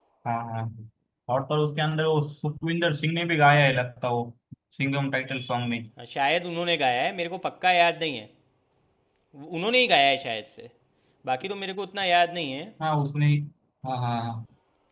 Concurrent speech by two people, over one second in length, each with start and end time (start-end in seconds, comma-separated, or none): none